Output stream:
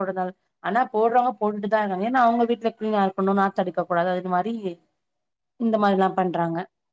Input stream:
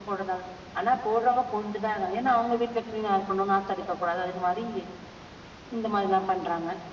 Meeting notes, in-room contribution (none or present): none